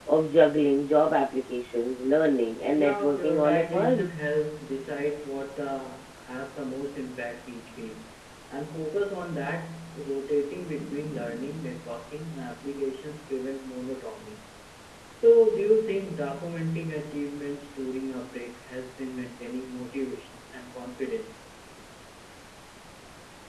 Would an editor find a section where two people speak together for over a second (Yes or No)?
Yes